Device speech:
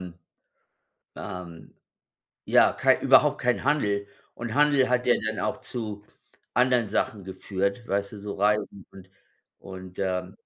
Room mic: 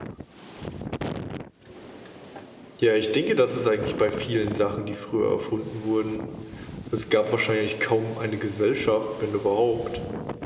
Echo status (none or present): none